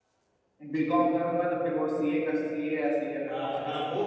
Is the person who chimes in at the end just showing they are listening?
No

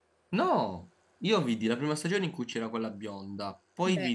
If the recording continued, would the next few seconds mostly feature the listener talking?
No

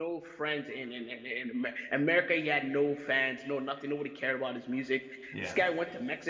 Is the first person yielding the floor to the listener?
No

